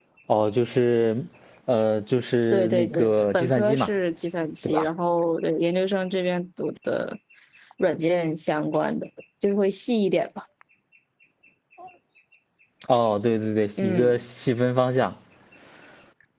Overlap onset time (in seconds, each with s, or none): 2.5 s